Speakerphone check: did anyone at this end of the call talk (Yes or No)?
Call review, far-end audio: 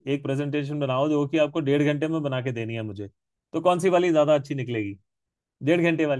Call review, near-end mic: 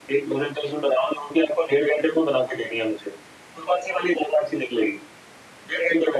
No